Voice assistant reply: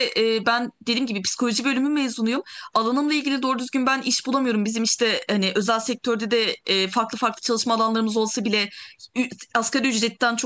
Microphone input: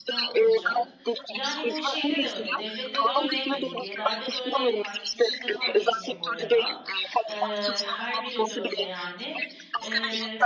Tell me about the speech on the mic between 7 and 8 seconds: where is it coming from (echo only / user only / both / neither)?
both